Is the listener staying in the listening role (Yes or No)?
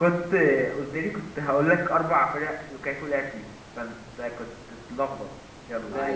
No